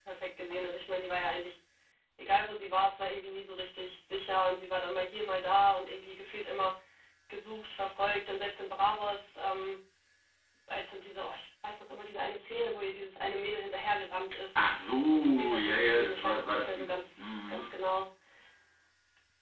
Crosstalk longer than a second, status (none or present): present